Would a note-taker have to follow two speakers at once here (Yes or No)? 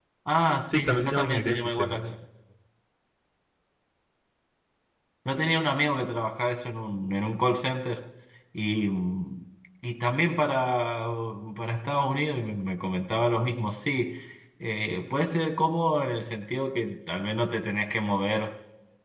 Yes